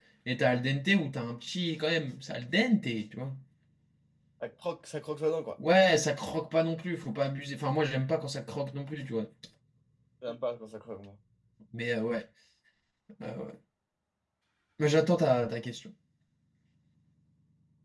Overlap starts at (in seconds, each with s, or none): none